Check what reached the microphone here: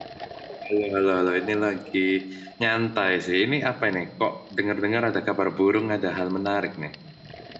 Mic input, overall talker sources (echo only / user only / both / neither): user only